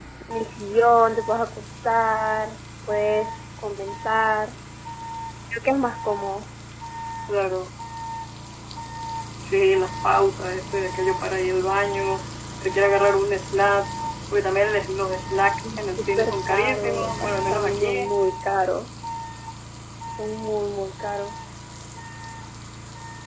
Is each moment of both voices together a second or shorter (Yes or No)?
No